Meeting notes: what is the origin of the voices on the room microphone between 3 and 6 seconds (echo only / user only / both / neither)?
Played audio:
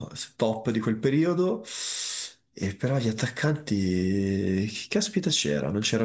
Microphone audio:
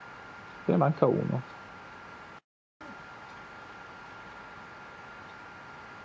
neither